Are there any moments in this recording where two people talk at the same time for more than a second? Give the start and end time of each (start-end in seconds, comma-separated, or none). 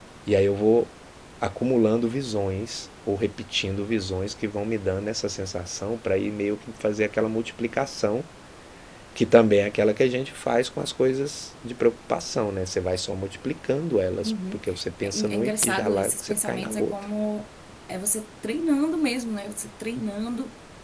15.0-16.9